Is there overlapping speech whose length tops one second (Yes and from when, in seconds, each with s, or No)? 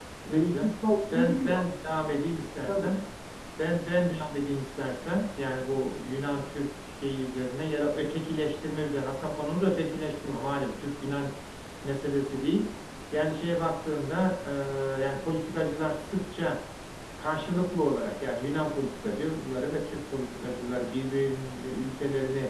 No